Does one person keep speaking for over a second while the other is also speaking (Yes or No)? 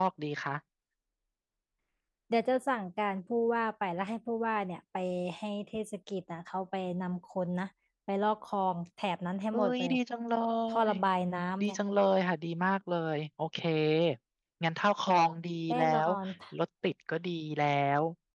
No